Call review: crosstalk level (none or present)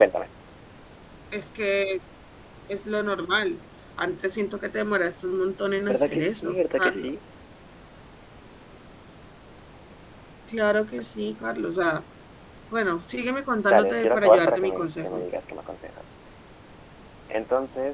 present